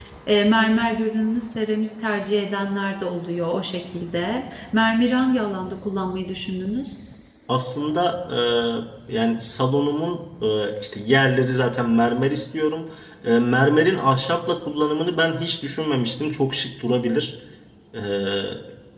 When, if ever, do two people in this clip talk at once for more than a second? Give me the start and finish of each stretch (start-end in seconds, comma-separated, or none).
none